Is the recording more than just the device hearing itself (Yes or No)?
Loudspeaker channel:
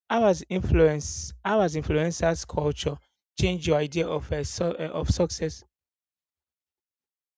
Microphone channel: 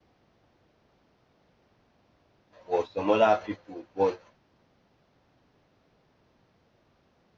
Yes